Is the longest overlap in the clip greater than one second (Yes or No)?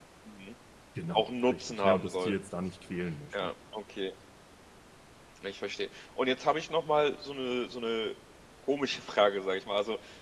Yes